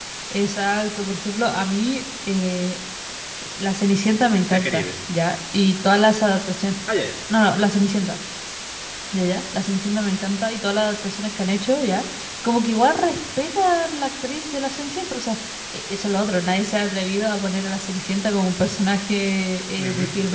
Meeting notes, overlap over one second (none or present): none